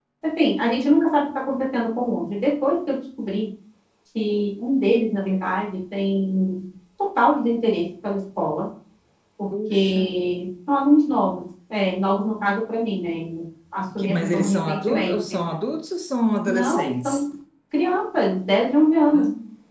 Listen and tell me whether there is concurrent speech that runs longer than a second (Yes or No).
Yes